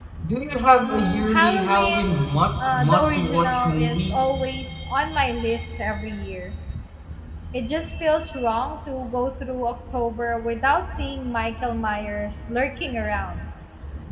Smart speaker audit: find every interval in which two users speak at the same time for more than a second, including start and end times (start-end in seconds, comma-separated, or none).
0.8-4.2